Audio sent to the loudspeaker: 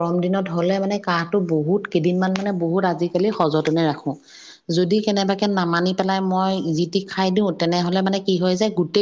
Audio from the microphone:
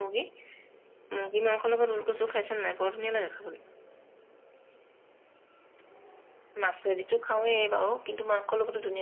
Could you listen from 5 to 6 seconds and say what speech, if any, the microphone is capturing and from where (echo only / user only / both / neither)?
neither